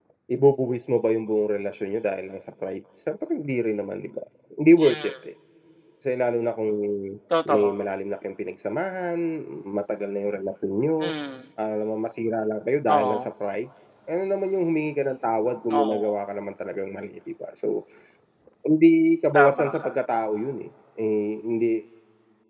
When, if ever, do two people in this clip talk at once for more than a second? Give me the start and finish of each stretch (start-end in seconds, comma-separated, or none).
none